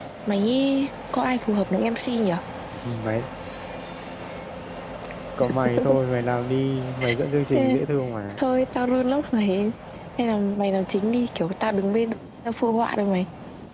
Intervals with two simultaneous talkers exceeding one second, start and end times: none

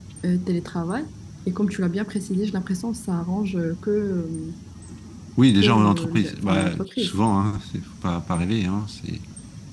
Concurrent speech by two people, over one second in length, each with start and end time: 5.6-7.2

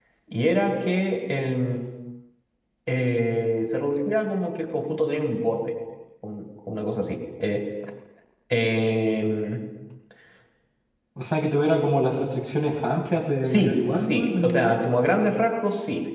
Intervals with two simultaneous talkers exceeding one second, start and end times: 13.5-14.8

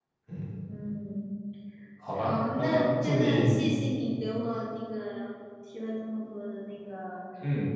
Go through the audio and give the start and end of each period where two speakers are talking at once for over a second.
2.1-3.6

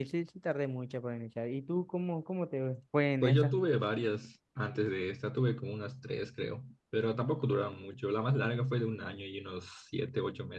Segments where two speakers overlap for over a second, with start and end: none

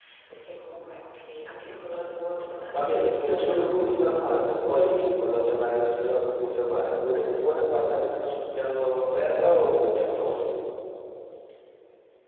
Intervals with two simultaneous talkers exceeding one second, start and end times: 2.7-4.7

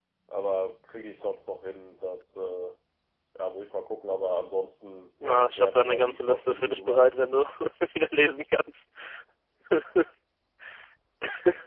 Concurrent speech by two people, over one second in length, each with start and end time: 5.2-7.0

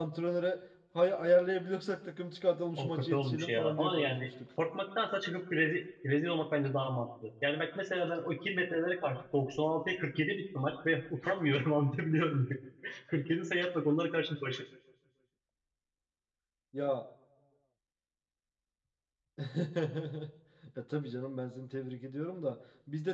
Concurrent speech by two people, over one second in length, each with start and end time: 2.8-4.3

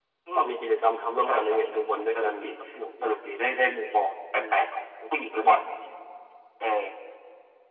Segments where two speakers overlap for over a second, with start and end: 1.2-2.5

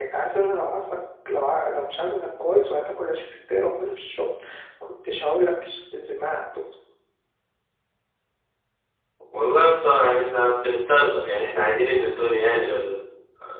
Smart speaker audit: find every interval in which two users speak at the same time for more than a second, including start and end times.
none

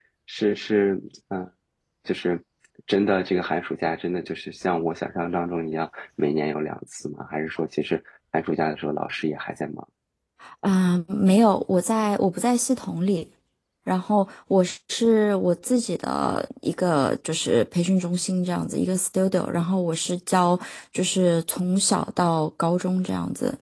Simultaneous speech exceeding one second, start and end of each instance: none

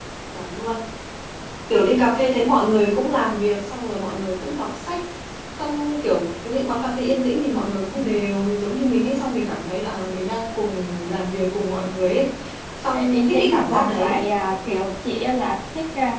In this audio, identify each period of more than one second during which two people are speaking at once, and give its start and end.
12.9-14.2

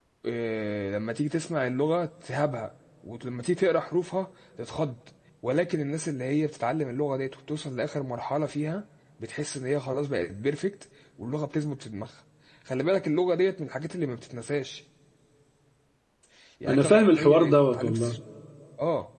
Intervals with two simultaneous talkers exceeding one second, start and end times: 16.7-18.2

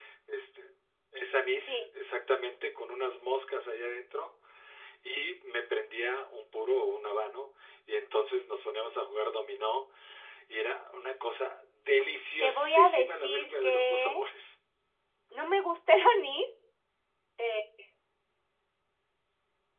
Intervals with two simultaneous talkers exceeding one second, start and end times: 12.4-14.2

